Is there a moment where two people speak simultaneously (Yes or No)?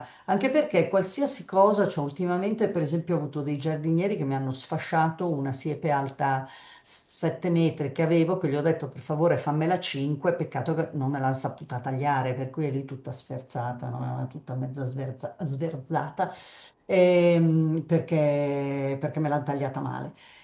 No